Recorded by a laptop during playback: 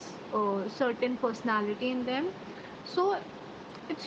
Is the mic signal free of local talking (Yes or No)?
Yes